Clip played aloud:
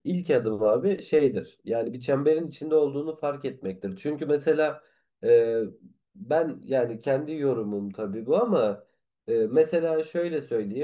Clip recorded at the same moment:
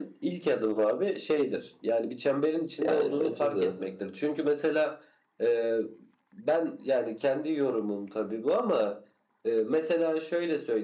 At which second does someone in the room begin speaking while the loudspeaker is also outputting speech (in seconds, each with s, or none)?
2.8 s